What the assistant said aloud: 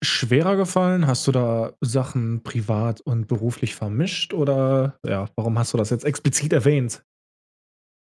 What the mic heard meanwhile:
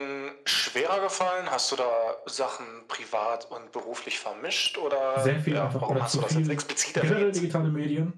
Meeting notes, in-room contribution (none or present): present